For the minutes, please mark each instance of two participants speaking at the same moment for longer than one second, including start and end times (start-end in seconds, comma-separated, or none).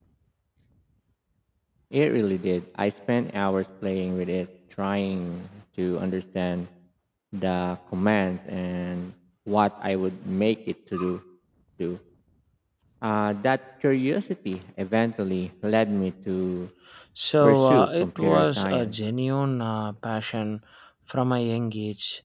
17.4-19.0